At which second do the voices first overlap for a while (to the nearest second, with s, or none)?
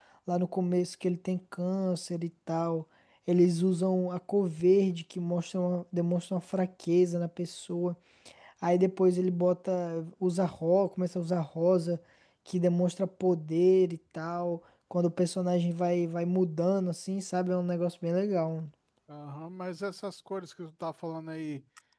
none